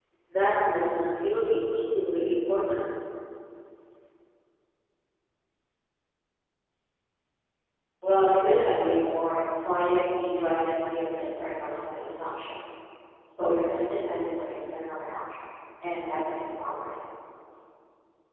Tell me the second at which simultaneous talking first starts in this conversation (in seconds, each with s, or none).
none